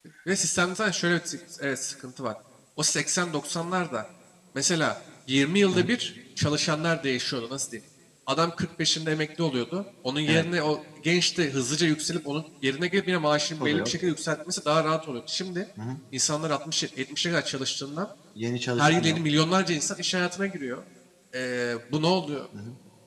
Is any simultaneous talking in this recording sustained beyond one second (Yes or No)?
No